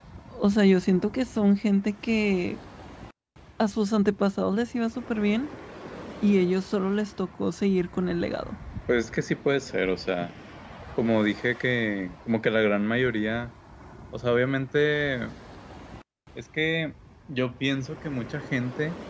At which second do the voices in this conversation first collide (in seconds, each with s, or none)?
none